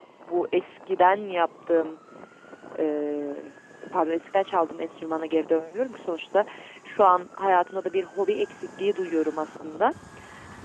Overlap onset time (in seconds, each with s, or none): none